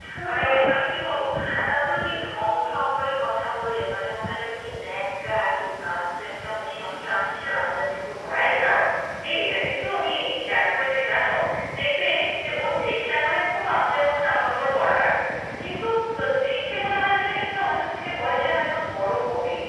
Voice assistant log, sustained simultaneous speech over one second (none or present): none